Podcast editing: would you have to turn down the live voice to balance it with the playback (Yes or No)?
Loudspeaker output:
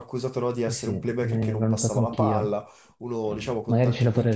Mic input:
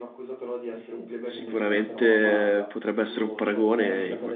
Yes